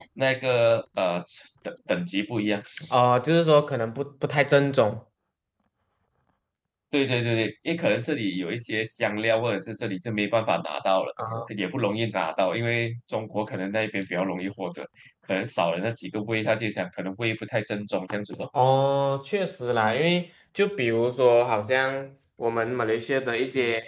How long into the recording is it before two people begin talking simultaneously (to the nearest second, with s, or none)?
none